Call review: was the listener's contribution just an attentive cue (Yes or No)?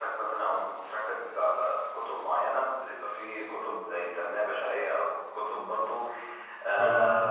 Yes